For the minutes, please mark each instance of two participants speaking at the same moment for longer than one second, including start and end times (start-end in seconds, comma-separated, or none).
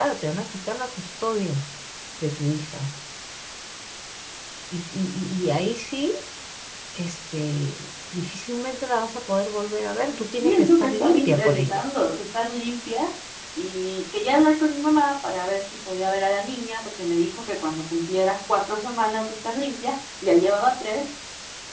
10.1-11.9